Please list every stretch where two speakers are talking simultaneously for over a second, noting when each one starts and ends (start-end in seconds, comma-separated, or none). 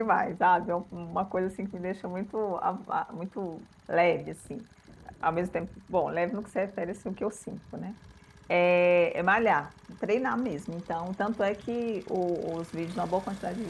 none